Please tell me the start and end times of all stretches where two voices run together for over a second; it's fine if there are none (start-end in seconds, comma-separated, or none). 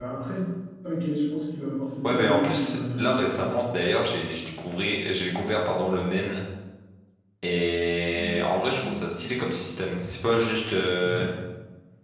2.0-3.6